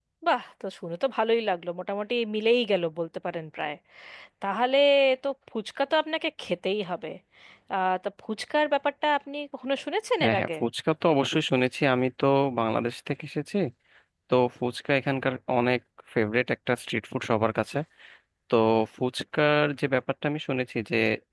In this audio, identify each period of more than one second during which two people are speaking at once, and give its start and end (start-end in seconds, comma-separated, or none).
none